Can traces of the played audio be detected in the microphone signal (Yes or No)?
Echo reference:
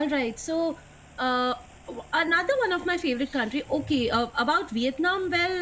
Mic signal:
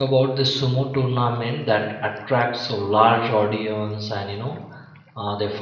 No